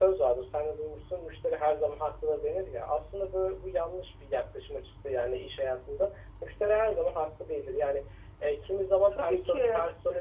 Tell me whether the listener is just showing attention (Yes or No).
Yes